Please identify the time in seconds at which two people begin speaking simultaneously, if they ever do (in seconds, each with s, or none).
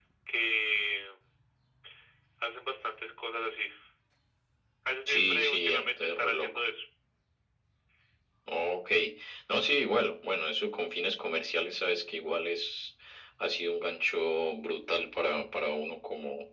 5.1 s